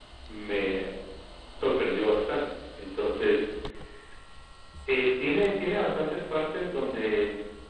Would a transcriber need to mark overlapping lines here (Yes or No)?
No